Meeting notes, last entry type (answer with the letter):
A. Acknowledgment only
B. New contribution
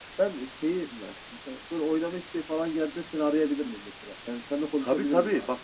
B